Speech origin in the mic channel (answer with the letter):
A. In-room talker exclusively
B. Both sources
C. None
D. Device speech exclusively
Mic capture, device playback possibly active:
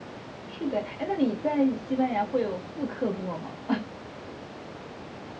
A